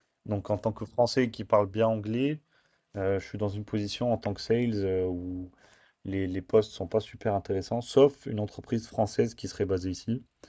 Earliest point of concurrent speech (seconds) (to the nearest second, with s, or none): none